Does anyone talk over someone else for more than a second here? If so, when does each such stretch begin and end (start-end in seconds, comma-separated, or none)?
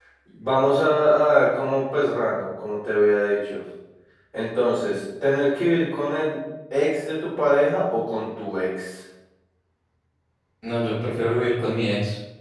none